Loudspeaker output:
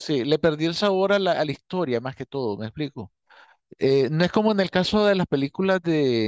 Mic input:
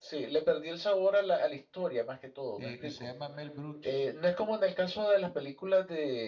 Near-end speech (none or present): present